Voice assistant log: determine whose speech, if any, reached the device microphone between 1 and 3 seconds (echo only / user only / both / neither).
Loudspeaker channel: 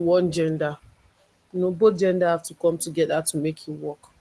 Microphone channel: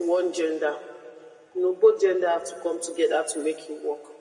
echo only